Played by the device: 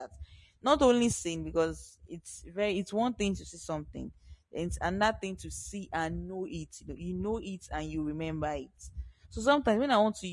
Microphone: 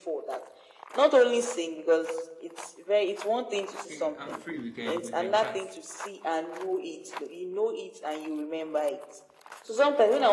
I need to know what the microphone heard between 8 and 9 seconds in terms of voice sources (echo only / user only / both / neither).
echo only